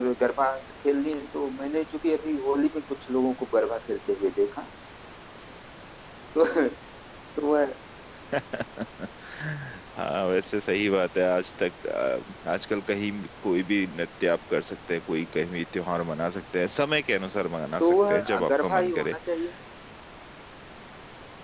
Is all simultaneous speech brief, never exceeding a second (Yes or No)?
No